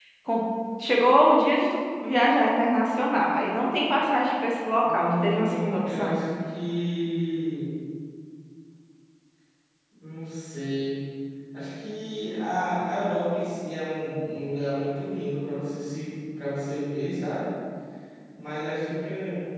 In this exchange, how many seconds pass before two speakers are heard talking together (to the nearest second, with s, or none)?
5 s